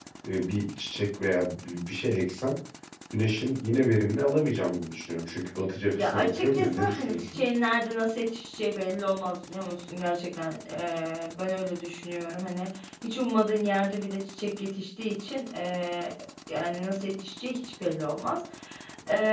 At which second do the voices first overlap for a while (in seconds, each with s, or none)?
6.0 s